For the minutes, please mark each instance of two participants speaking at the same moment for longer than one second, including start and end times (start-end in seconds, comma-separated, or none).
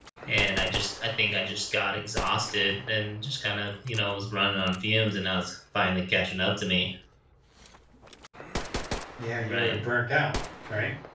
none